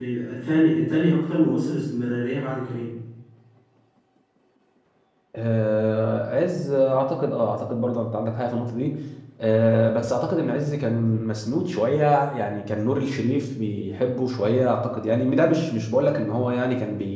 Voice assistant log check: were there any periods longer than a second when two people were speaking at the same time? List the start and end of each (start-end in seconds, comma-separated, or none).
none